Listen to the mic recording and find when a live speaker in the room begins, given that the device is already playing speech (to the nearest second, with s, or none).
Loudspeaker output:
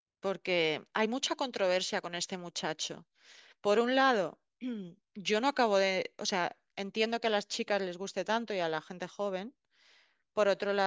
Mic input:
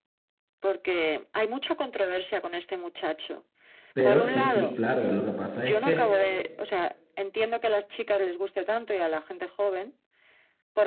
4 s